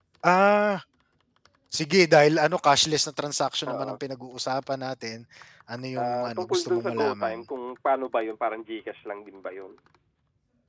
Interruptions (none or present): present